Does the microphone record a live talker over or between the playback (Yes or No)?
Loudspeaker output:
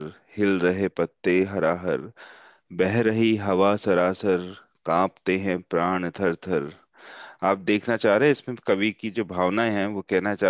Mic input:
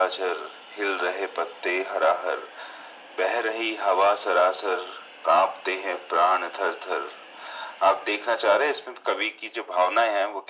No